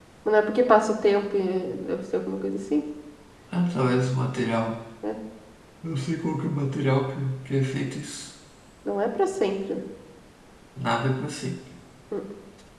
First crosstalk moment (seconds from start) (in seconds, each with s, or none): none